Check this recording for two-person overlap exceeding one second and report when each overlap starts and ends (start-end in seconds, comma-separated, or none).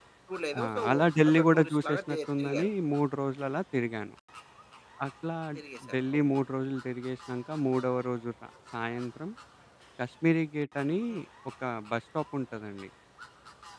1.3-2.7